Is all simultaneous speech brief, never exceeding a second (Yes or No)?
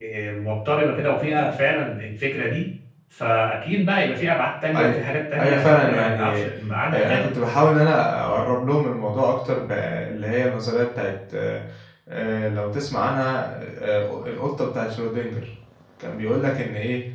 No